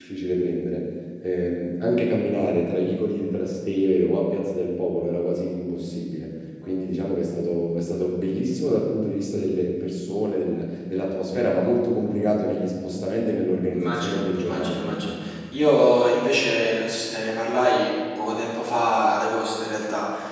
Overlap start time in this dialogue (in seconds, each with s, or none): 13.7 s